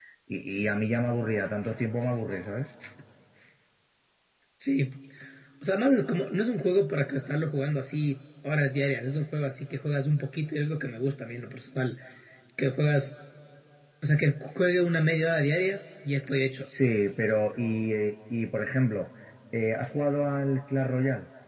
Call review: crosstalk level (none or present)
none